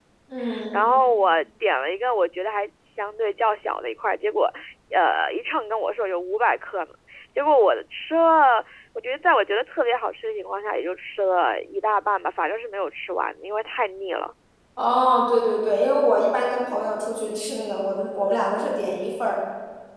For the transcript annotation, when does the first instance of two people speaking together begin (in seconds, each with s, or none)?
none